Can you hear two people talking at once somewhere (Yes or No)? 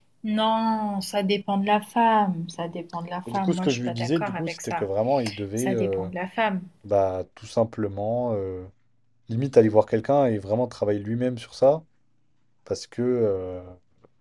Yes